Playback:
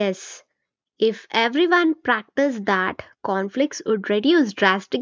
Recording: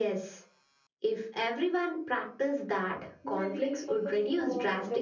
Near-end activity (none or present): present